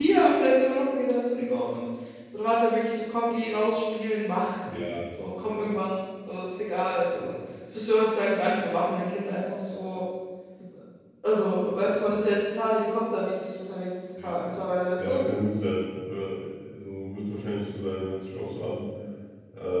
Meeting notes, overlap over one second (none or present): none